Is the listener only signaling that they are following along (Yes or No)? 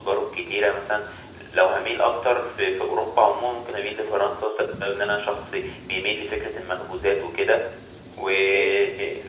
Yes